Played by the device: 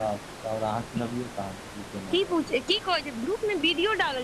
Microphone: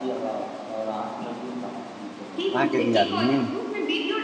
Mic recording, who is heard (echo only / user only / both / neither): both